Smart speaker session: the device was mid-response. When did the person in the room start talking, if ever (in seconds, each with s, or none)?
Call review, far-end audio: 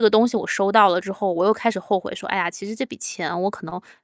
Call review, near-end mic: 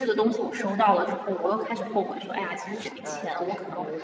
3.0 s